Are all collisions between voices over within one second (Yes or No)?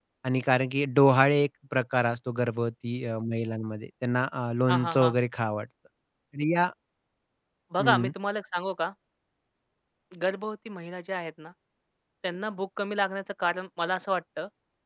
Yes